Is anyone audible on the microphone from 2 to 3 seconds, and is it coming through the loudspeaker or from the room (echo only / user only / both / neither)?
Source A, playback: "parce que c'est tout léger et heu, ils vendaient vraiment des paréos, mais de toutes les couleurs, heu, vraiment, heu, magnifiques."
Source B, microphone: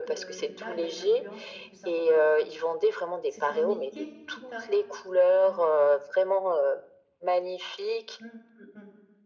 both